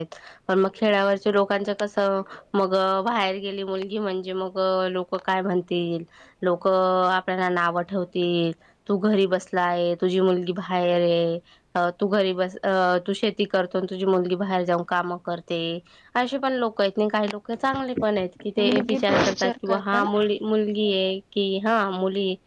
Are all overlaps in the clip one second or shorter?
No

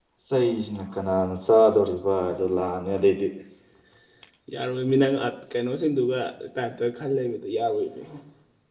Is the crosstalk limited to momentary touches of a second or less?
Yes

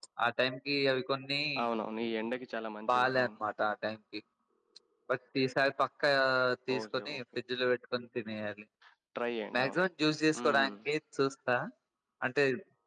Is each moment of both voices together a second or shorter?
Yes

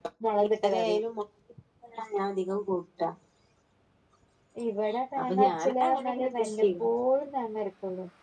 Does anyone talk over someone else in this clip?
Yes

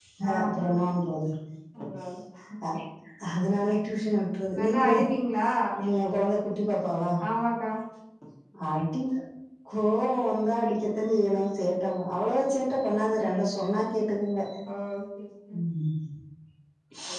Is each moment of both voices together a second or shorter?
Yes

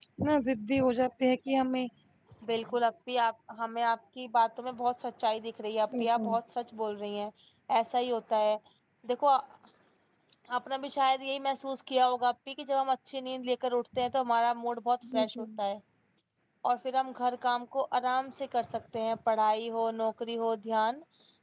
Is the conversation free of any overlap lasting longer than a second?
Yes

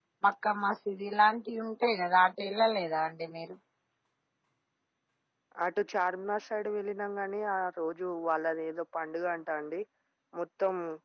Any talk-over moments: No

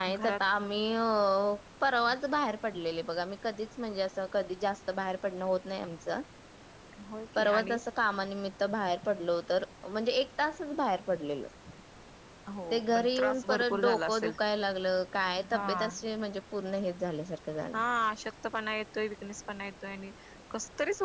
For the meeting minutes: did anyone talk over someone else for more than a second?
Yes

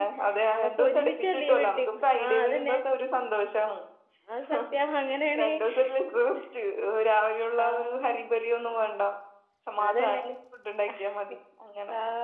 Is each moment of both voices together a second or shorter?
No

